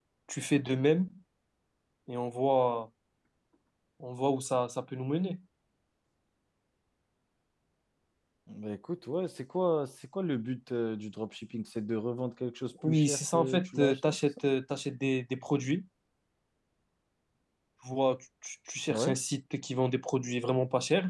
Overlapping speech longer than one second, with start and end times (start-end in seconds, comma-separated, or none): 12.8-14.3